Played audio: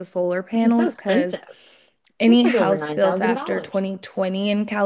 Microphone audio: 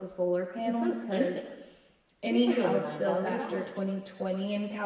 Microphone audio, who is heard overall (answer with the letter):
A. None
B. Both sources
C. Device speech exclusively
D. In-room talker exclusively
C